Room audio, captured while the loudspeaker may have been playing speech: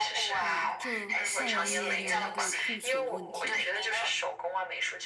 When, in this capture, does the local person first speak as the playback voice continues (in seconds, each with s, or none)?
0.4 s